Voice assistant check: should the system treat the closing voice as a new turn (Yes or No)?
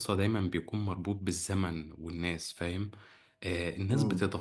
No